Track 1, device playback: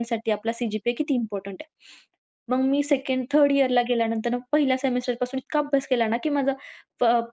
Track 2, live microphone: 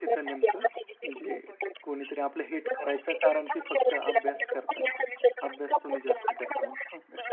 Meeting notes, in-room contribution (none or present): present